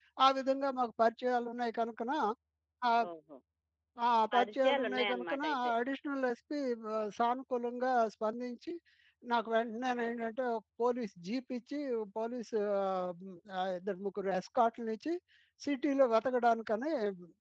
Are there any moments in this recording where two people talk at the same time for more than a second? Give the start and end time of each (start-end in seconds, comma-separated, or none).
4.3-5.7